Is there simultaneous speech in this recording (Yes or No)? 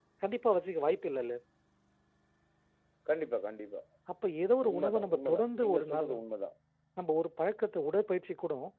Yes